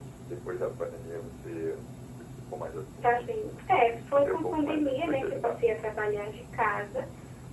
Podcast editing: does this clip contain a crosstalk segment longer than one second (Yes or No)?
Yes